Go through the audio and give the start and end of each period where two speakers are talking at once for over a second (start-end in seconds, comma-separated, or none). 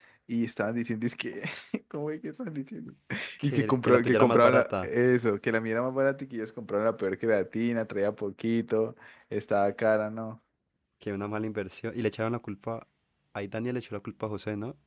3.4-4.9